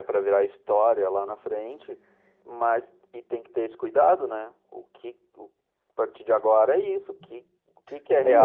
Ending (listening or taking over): taking over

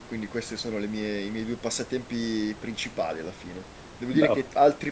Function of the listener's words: listening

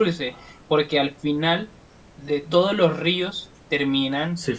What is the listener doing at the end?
listening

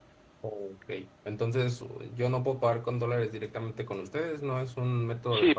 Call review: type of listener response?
taking over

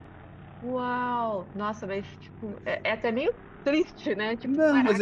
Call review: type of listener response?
taking over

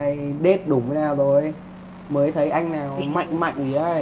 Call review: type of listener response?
listening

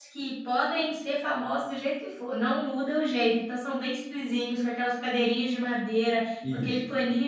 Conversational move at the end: listening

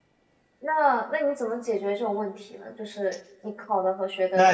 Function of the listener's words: taking over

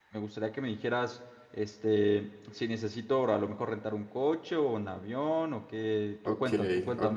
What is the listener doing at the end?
taking over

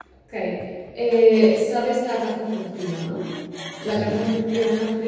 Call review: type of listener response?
listening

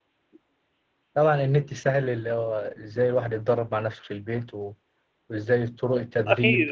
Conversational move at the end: taking over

